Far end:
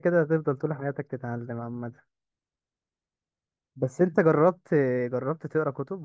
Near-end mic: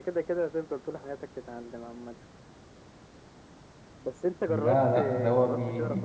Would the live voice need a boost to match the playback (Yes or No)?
No